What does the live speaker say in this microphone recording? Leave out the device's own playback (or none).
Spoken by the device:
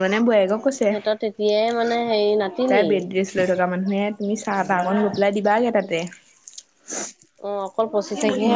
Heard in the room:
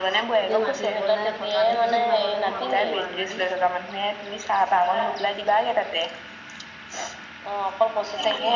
এতিয়া মাটি ৰুবলৈ থকা দেখিহে যাবলৈ ঘনটো হোৱা নাই।